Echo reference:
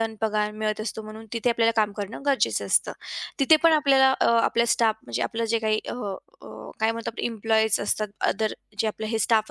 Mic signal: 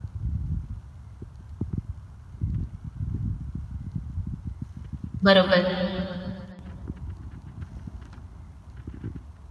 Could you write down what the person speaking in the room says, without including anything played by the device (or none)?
बरोबर.